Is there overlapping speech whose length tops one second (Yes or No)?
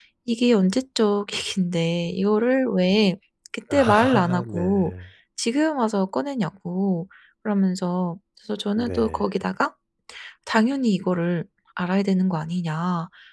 Yes